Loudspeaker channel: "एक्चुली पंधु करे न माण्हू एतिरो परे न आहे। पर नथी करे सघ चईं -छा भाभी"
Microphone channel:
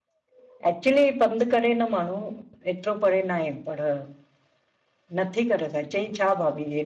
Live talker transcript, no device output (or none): none